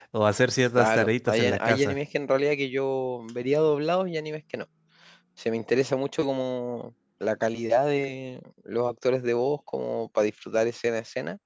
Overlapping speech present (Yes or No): Yes